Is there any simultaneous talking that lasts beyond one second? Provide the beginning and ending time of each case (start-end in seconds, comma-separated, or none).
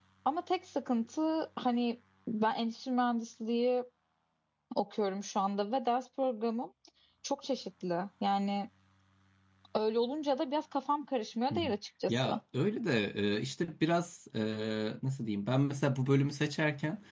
none